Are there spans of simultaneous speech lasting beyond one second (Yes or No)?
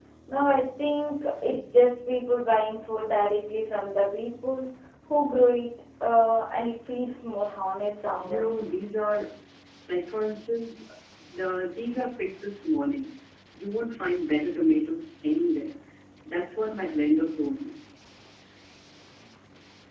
No